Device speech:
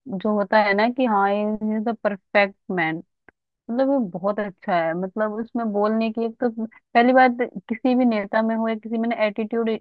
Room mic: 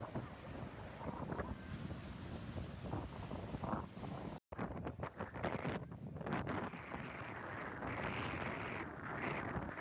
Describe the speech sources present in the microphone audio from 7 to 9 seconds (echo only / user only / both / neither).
neither